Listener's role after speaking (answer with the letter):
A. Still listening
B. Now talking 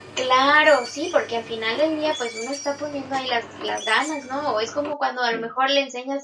A